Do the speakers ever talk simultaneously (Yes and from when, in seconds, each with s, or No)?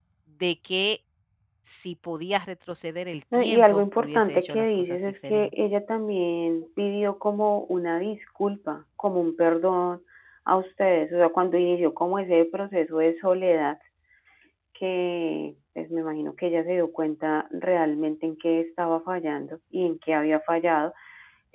Yes, from 3.3 s